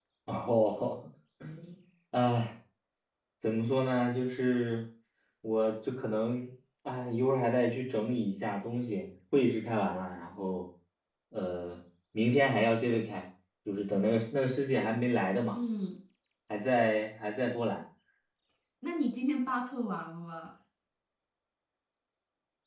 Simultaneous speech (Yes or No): No